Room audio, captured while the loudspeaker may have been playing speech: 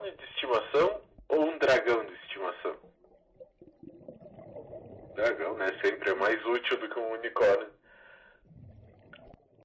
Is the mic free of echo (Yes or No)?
No